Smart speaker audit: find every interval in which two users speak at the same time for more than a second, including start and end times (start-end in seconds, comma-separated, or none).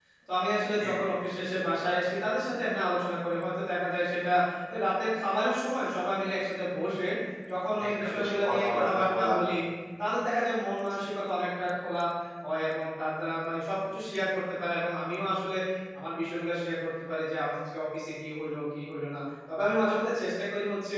8.0-9.3